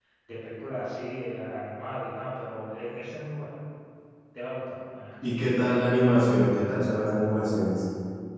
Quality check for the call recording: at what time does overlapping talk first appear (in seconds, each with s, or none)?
none